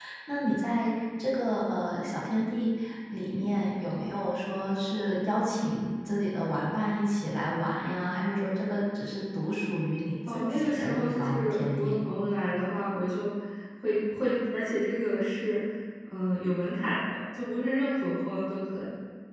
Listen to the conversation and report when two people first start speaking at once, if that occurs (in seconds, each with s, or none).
10.3 s